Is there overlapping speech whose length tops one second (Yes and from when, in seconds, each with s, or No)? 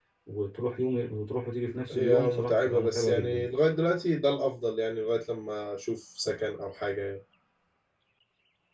Yes, from 1.9 s